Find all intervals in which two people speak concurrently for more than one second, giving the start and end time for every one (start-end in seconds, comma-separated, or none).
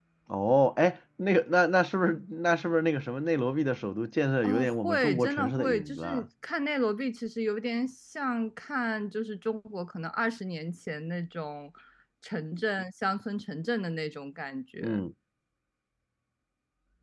4.4-6.2